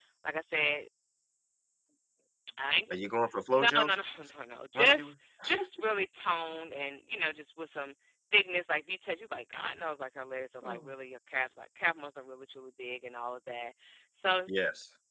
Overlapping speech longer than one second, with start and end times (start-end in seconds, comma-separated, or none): none